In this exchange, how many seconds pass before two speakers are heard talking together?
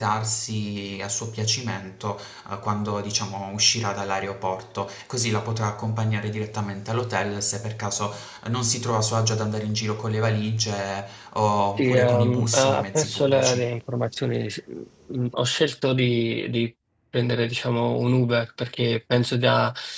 12 s

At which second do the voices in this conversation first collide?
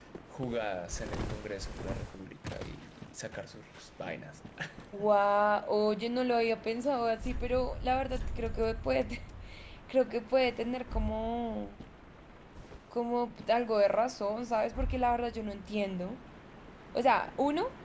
none

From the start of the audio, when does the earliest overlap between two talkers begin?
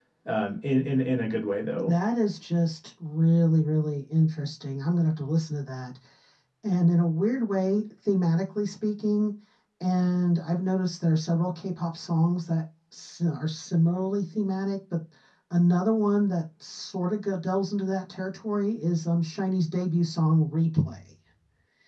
none

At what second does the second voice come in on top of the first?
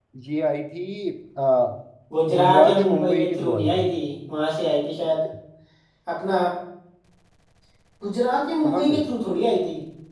2 s

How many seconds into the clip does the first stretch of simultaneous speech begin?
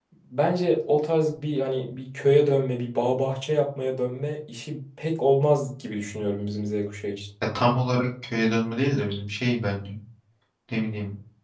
none

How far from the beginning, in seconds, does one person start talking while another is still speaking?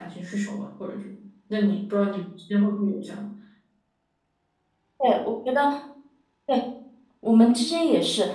none

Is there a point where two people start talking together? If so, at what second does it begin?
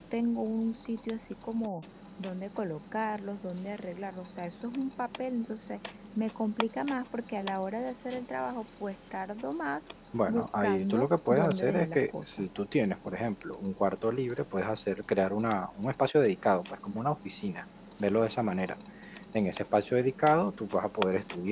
10 s

